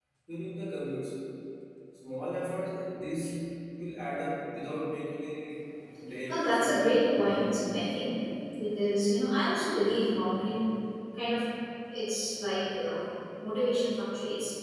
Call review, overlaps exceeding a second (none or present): present